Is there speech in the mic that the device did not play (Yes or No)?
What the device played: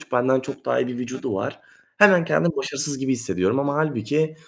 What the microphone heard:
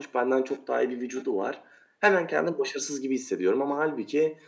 No